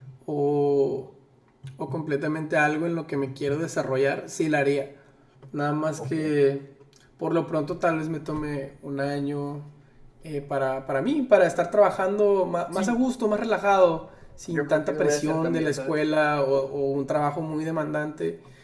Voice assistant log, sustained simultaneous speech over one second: present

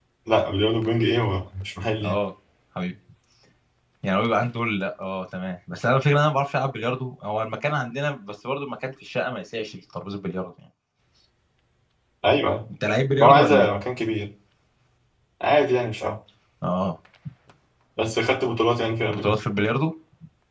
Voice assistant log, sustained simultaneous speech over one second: none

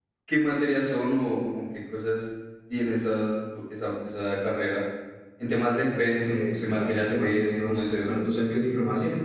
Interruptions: present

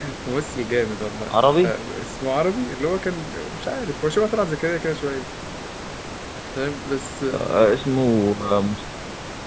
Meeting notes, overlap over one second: none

